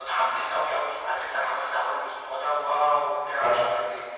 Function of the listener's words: listening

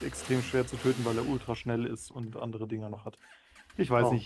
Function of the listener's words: listening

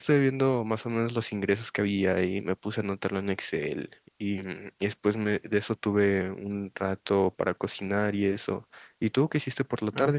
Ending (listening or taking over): taking over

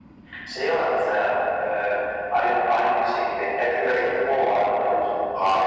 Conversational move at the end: taking over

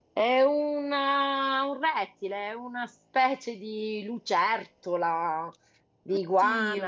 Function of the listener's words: listening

